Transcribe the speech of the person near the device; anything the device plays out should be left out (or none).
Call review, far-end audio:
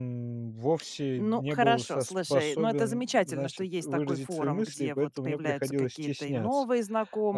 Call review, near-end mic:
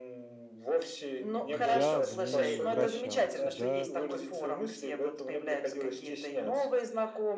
я в ней вращался, да.